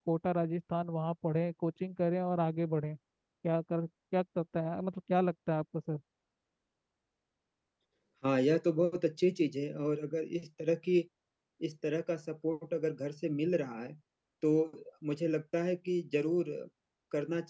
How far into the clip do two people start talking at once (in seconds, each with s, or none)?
none